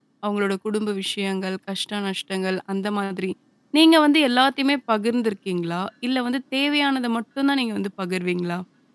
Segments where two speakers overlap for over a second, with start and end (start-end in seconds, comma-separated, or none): none